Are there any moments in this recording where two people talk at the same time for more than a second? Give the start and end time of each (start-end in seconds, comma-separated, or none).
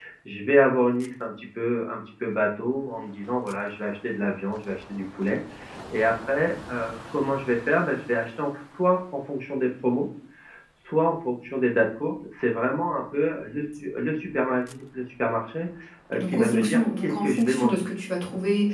16.2-17.8